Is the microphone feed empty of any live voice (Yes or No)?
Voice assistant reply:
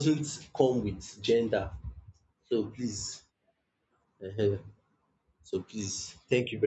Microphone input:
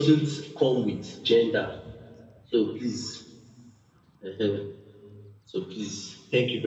Yes